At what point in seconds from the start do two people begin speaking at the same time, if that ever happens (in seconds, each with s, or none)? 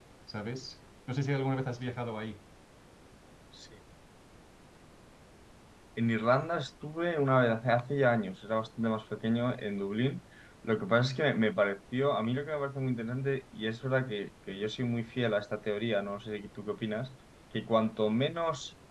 none